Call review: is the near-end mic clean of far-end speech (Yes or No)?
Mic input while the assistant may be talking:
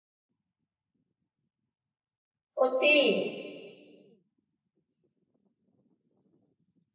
Yes